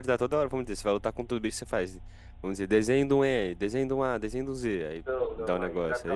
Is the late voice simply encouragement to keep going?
No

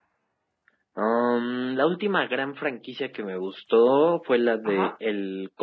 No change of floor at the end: Yes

